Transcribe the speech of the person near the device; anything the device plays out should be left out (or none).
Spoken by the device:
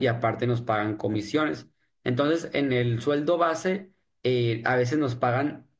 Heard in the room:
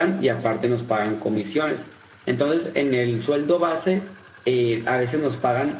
none